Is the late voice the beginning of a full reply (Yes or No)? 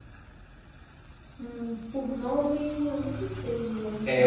Yes